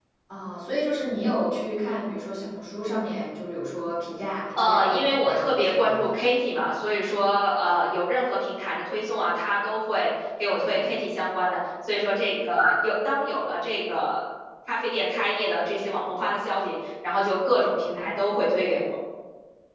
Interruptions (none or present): present